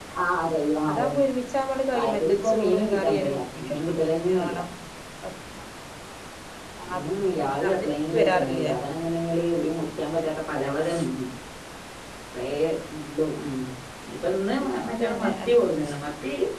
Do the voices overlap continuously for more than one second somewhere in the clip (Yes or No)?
Yes